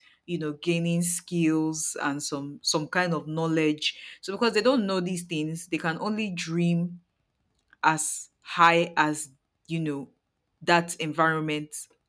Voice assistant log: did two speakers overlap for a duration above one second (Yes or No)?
No